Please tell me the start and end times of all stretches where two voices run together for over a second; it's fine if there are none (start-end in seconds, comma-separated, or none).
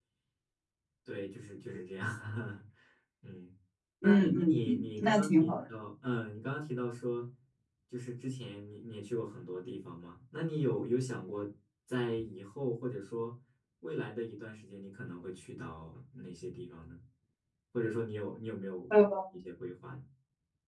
4.0-5.6